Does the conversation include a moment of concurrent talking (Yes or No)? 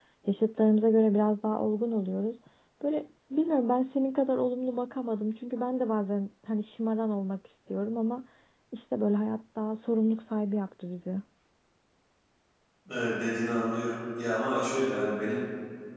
No